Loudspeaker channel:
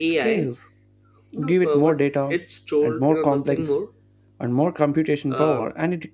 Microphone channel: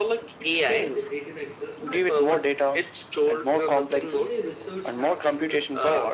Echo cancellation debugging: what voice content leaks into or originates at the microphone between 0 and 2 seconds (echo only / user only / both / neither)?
both